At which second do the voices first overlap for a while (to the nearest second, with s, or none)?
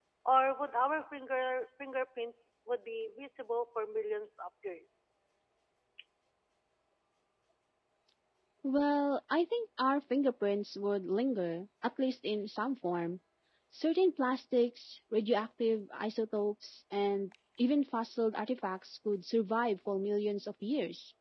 none